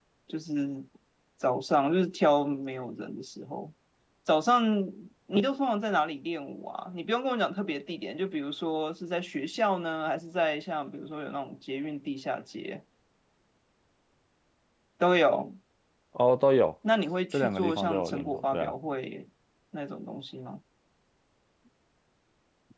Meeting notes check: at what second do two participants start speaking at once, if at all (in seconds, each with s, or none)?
17.3 s